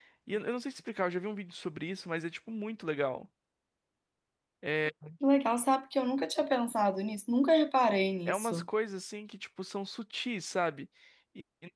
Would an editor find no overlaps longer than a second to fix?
Yes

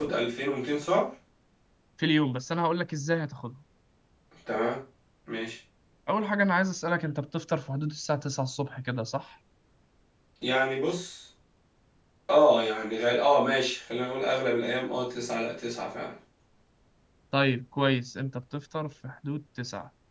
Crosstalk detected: No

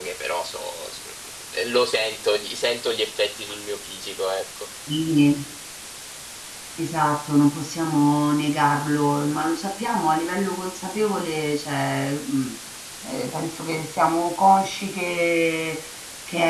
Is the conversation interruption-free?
Yes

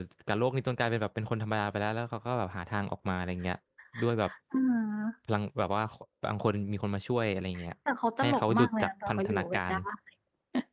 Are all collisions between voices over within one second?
No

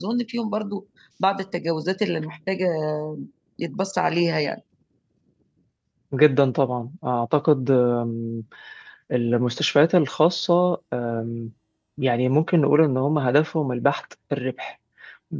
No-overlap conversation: Yes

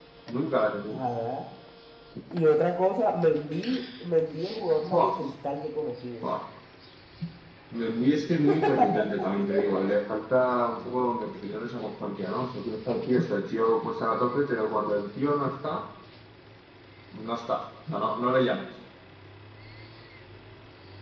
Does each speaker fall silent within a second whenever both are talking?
Yes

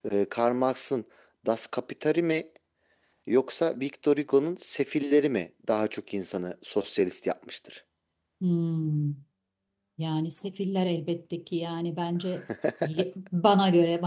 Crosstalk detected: No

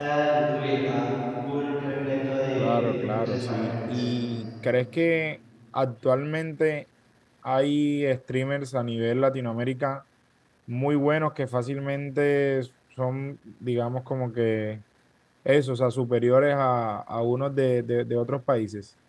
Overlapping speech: Yes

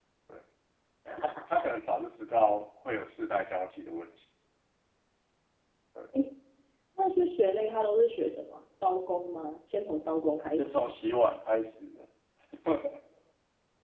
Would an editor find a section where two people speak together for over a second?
No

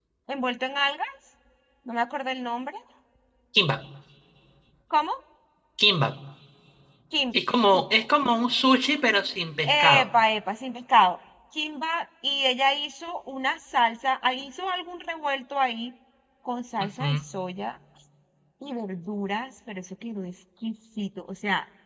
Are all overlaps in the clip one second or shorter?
Yes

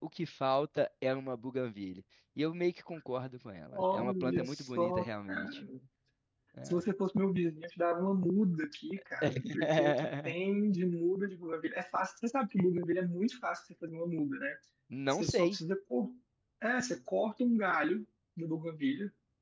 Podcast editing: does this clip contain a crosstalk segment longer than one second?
Yes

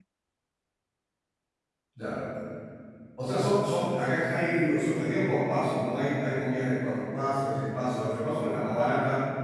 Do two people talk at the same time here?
No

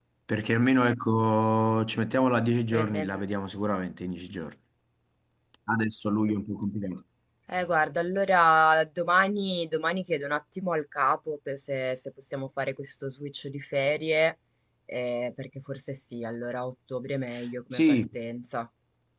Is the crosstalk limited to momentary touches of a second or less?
Yes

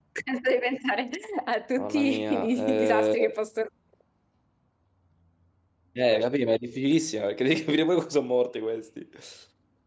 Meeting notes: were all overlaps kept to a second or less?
No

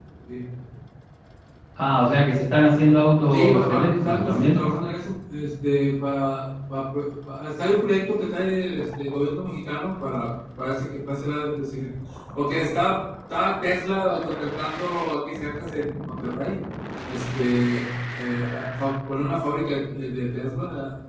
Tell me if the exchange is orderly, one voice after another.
No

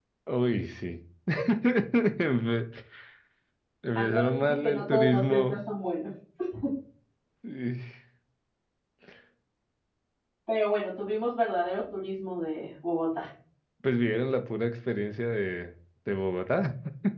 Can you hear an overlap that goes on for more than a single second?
Yes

